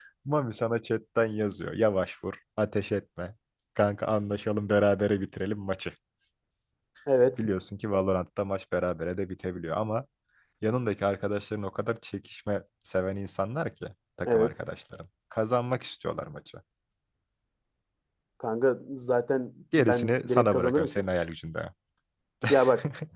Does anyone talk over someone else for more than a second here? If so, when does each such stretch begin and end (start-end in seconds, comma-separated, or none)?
19.8-21.0